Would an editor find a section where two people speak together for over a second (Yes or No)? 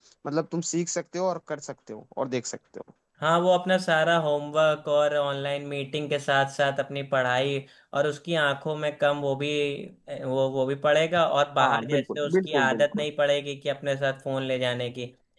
Yes